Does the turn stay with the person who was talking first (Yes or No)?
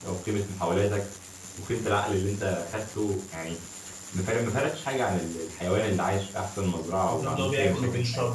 No